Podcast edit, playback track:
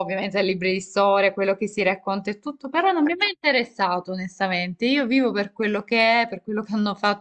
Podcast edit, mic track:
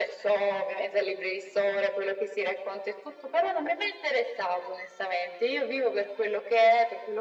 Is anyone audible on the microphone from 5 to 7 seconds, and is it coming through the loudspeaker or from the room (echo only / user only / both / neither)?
echo only